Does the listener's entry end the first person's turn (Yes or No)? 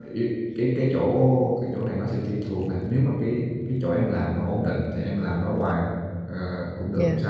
No